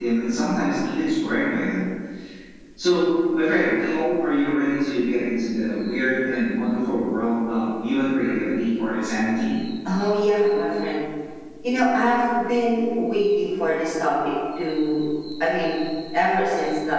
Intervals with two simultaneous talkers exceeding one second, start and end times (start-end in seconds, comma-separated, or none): none